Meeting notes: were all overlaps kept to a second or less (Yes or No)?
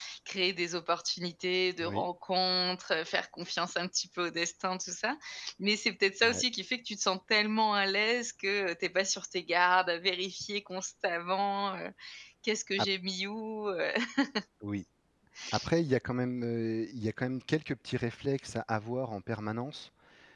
Yes